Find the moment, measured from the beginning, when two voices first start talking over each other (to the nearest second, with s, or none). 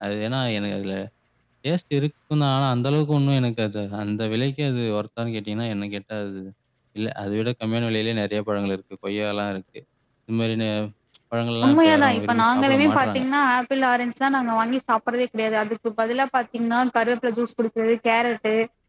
12 s